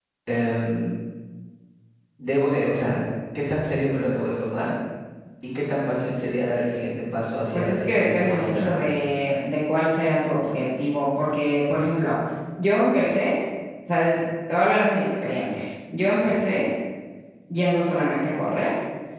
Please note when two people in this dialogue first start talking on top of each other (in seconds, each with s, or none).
7.5 s